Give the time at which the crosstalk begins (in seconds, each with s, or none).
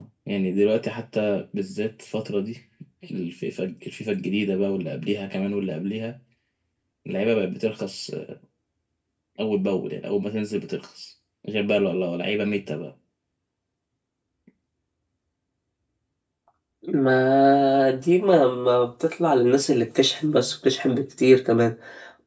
none